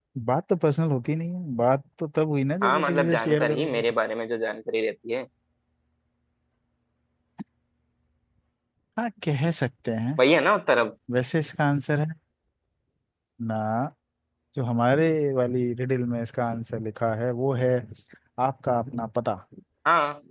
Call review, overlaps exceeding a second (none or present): present